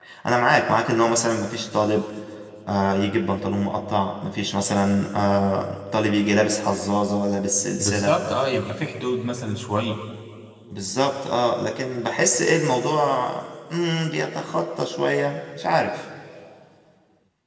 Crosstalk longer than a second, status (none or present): none